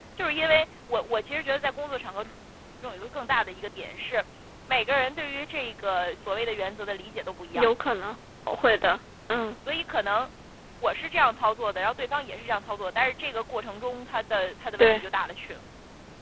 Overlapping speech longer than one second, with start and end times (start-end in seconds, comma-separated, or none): none